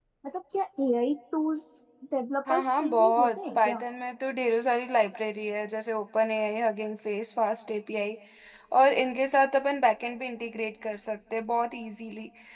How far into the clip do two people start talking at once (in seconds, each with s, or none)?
2.5 s